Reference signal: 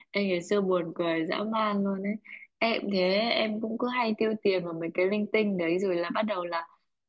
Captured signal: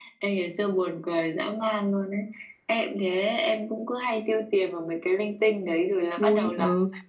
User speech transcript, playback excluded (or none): vui ừ